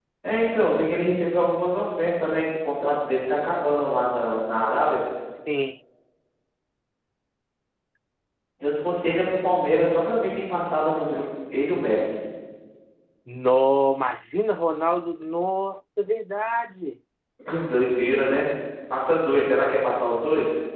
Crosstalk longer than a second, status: none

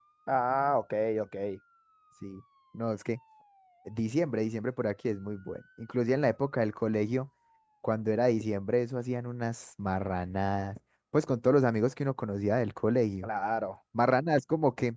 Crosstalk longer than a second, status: none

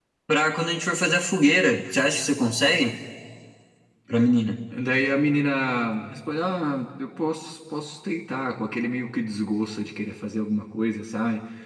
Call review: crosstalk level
none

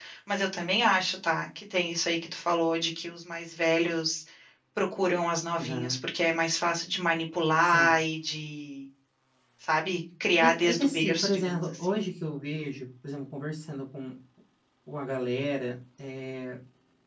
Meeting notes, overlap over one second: present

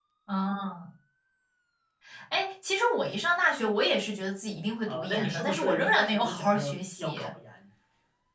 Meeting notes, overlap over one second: present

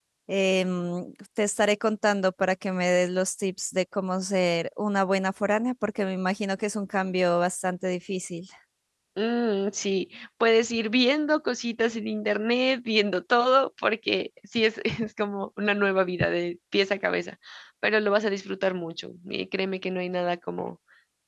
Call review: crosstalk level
none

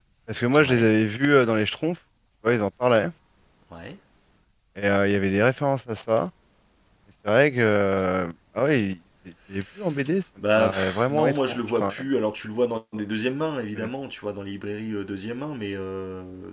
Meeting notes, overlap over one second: present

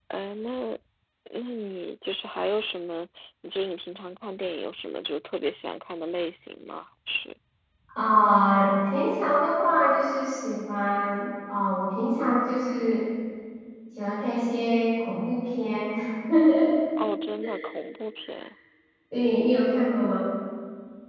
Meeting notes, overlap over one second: none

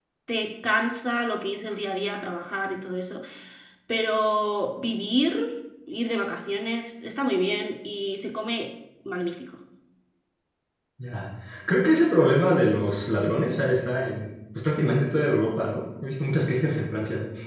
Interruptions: none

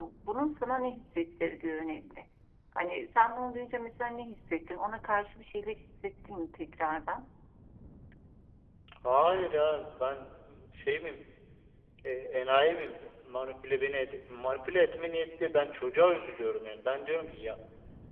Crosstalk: none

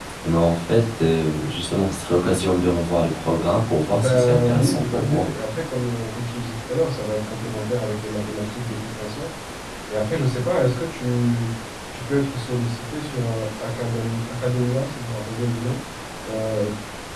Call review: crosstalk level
present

